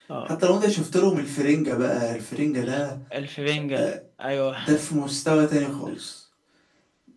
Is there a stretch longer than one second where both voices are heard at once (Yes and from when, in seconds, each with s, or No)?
No